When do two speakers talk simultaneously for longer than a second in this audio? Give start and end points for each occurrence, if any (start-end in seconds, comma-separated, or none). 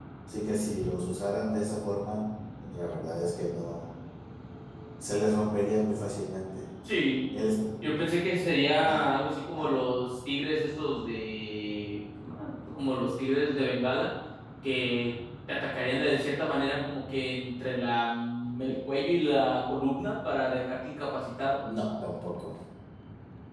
none